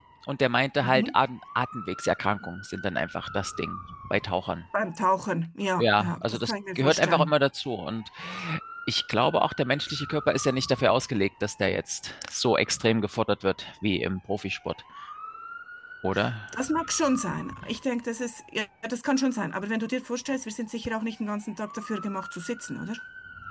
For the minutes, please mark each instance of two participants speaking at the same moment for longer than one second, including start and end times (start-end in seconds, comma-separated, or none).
5.8-7.3